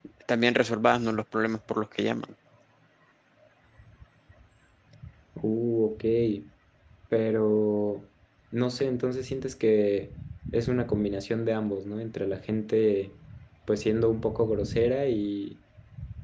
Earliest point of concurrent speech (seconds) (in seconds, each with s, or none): none